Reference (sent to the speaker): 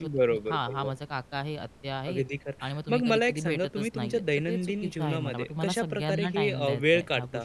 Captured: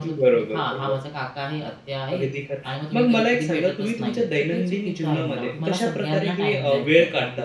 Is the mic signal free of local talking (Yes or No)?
Yes